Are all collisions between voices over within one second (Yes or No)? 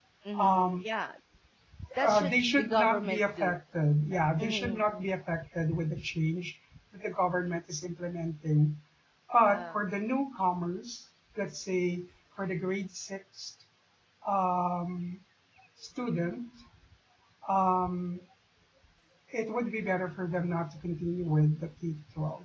No